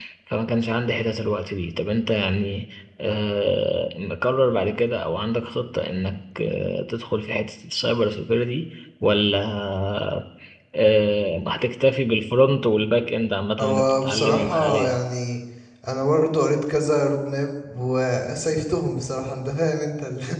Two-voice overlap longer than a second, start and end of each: 13.6-15.0

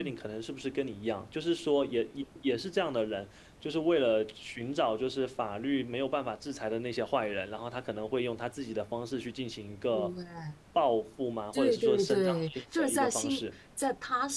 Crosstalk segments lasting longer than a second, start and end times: 11.5-13.3

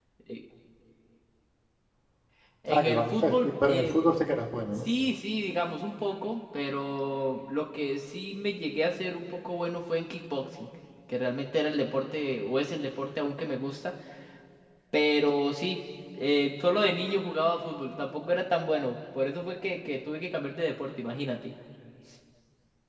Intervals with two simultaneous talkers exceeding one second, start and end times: 2.7-4.0

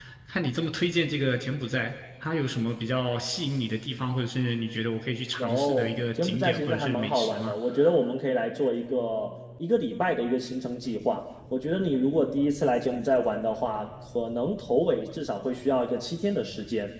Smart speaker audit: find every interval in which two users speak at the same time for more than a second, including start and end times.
5.4-7.5

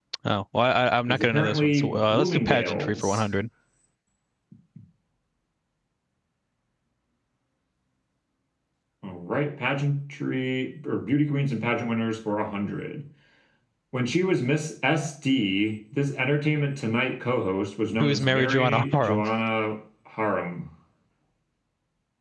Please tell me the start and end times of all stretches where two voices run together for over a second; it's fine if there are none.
1.1-3.2, 18.0-19.2

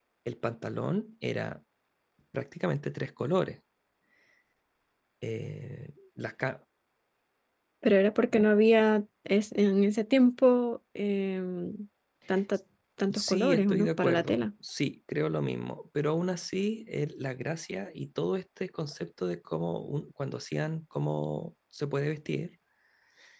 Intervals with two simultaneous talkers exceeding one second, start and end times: 13.1-14.4

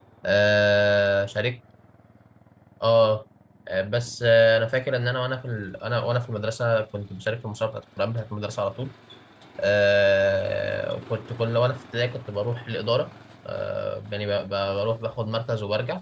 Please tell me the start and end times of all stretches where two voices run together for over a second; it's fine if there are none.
none

